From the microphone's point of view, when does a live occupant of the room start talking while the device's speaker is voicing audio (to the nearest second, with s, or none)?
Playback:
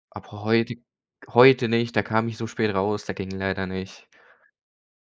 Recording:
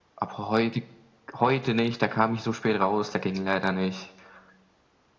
none